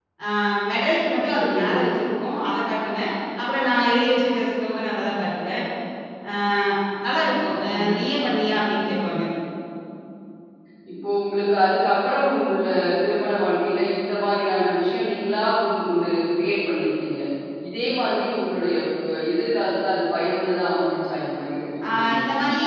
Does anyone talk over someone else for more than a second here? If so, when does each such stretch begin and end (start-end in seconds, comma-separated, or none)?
none